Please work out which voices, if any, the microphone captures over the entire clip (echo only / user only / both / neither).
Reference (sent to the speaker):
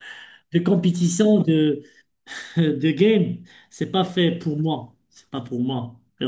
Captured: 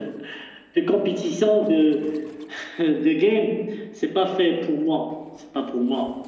echo only